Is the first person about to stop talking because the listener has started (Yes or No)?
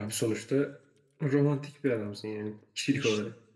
Yes